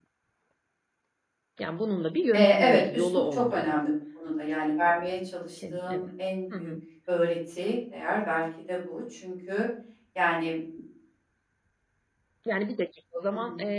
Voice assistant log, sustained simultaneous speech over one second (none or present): present